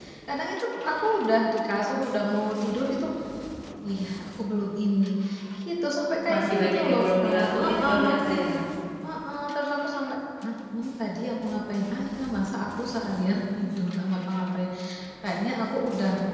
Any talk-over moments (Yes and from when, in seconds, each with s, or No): Yes, from 6.3 s